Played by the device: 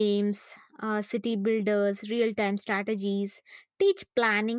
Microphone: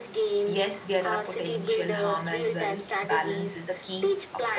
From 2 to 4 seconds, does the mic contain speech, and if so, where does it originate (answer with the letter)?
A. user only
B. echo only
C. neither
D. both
D